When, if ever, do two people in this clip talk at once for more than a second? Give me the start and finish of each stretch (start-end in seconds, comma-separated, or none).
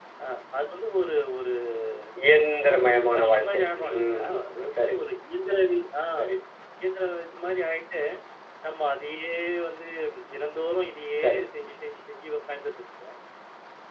2.6-4.4